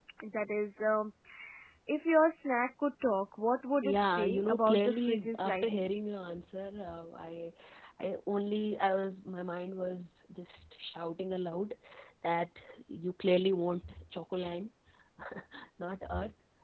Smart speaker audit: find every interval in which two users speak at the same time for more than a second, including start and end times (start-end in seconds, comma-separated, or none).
3.8-5.9